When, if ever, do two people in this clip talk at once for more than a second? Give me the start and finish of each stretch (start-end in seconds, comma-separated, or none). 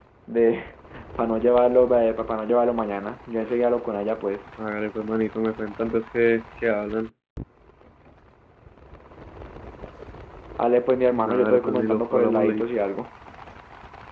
11.1-12.6